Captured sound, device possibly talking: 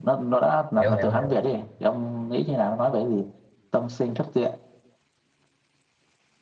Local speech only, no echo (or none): Hiểu hiểu hiểu.